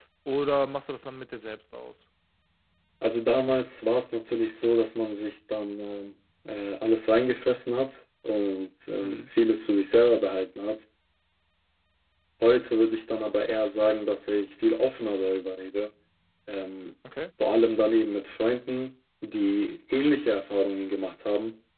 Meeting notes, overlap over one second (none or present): none